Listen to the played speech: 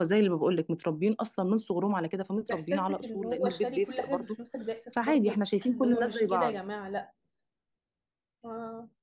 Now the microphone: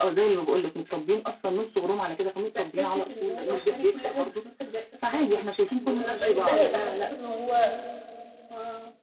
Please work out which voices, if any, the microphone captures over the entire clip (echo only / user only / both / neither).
both